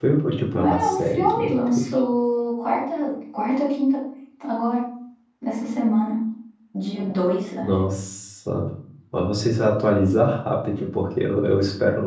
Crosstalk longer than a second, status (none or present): present